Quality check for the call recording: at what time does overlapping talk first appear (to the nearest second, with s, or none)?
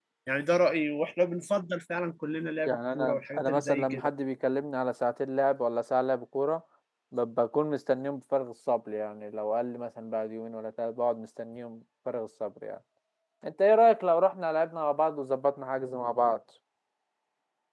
3 s